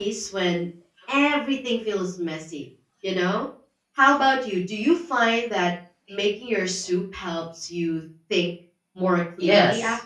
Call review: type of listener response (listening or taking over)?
taking over